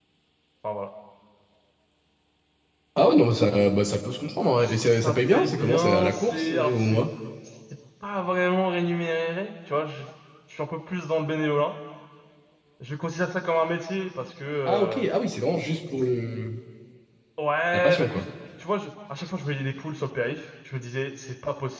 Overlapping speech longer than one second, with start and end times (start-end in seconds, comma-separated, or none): 4.6-7.0